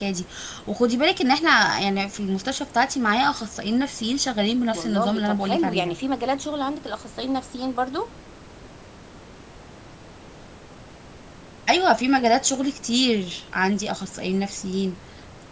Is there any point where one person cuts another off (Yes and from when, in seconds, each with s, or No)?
Yes, from 4.7 s